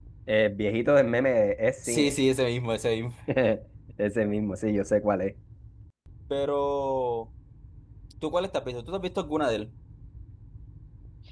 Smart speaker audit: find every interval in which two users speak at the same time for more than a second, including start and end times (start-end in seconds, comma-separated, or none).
none